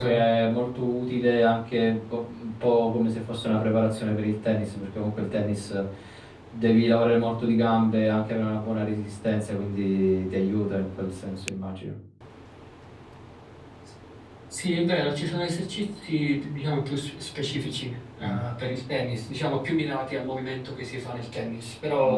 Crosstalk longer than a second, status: none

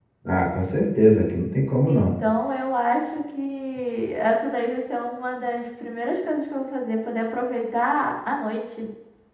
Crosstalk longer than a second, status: none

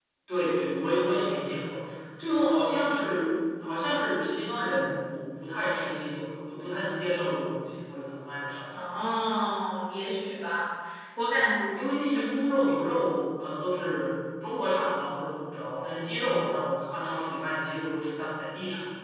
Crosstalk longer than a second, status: none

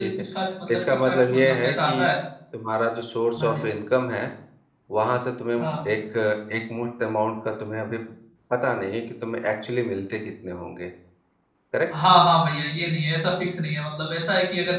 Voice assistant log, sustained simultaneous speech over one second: present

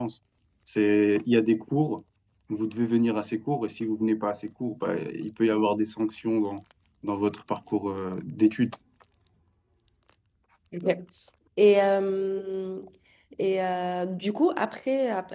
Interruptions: none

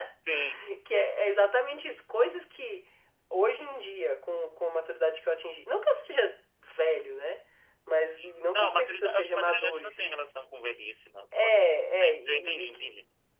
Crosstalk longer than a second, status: present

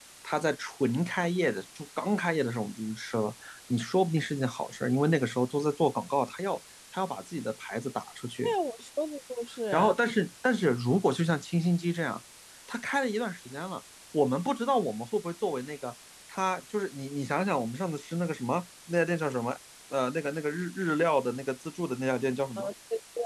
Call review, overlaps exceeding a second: none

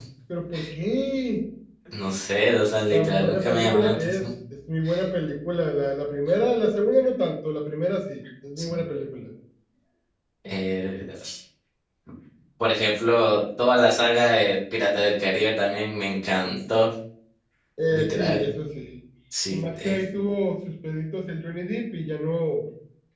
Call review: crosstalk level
present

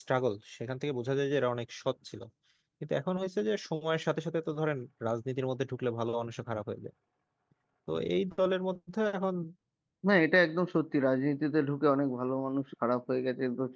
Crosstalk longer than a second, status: none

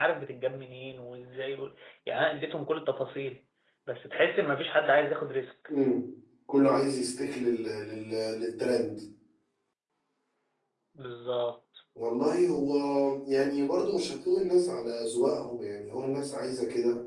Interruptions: none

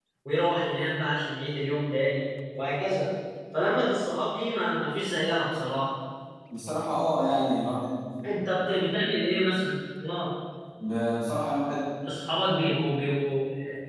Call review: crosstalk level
none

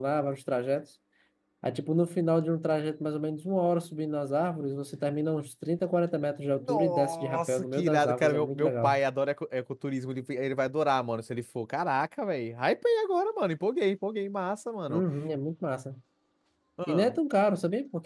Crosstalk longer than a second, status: present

